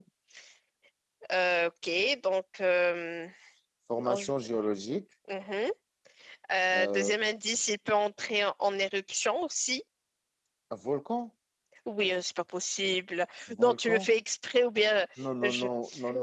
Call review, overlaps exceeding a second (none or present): none